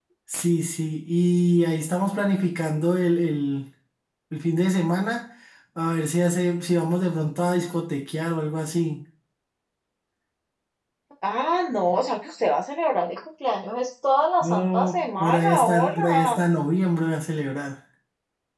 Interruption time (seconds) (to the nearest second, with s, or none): 14 s